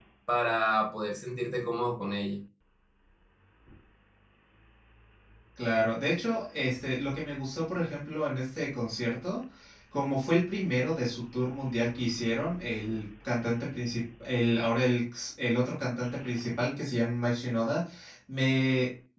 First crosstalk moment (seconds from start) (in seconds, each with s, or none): none